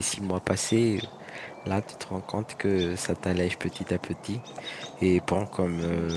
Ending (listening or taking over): listening